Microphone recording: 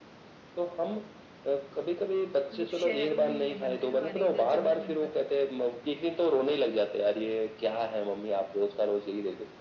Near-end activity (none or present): present